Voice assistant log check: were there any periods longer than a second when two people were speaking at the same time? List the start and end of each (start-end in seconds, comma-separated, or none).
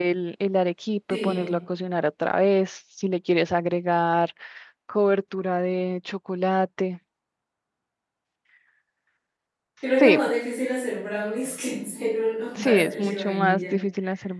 12.6-13.8